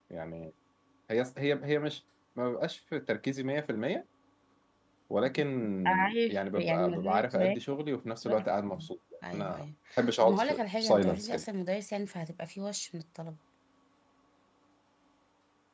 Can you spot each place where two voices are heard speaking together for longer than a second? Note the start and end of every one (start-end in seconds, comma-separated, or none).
5.9-7.4, 10.2-11.4